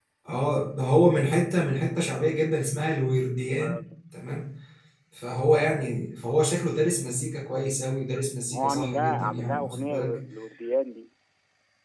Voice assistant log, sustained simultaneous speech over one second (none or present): present